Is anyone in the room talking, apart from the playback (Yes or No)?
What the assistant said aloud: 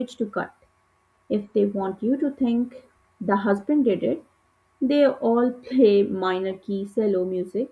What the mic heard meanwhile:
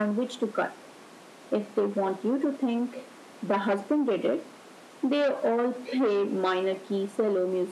No